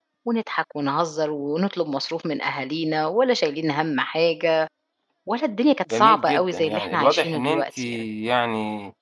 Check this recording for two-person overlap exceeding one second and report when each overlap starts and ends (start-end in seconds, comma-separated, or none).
5.9-7.8